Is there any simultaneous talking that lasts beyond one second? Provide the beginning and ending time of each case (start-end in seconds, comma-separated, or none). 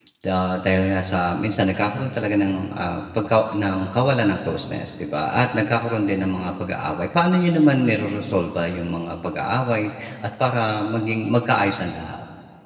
none